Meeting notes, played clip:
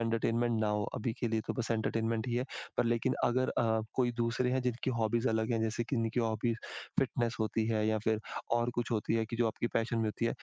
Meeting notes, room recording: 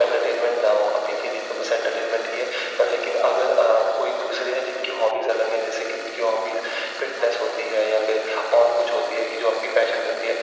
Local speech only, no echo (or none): none